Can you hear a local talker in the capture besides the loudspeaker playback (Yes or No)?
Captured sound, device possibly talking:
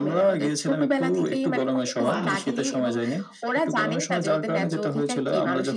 Yes